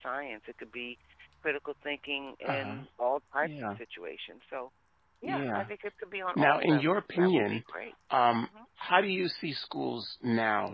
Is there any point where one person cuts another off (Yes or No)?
Yes